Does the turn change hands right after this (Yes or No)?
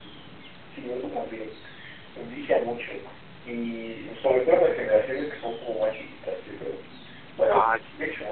No